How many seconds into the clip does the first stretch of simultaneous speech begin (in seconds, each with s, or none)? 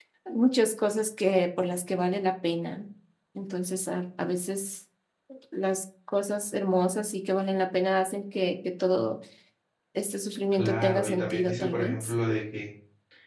10.5 s